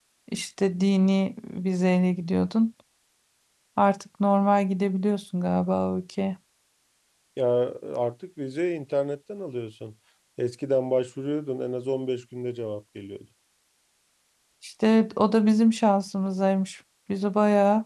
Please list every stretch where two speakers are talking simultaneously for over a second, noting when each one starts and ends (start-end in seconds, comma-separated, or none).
none